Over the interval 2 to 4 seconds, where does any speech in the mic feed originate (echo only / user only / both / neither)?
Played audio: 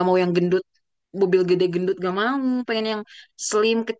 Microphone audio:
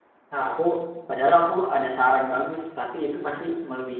user only